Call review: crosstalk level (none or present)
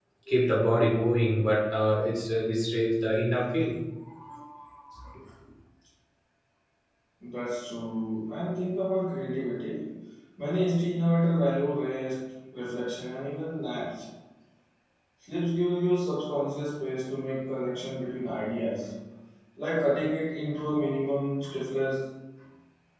none